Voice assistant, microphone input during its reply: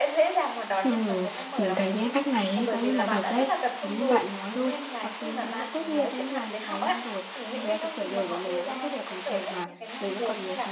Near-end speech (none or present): present